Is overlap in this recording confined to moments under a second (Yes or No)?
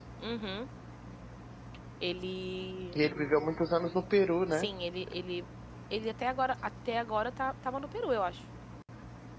Yes